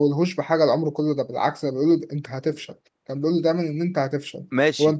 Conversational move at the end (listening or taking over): taking over